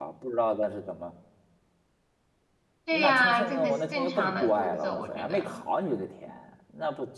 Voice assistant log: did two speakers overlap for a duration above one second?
Yes, from 2.9 s

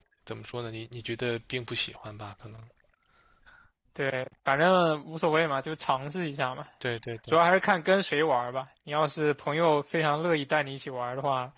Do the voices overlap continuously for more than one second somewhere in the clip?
No

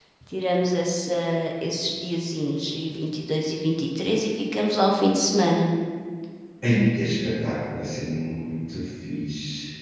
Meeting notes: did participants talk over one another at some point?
No

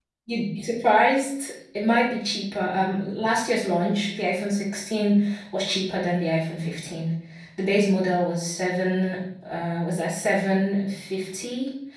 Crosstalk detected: No

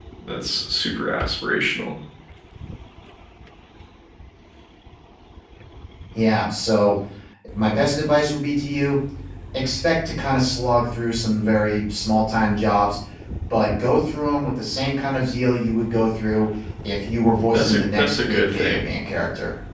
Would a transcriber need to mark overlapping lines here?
Yes, from 17.5 s

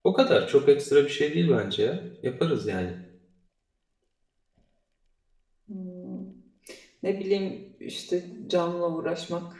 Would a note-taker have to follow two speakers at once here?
No

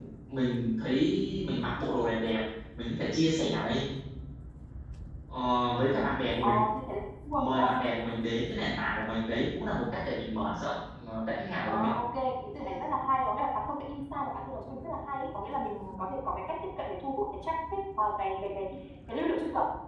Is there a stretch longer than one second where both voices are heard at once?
No

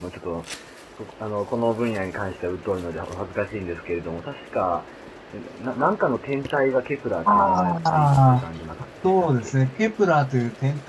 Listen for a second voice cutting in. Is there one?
Yes, from 7.2 s

